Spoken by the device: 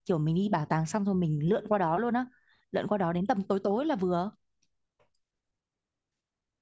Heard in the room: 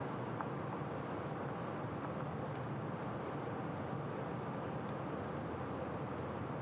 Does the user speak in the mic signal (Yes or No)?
No